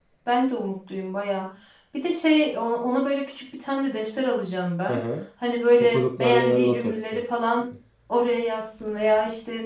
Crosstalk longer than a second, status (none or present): present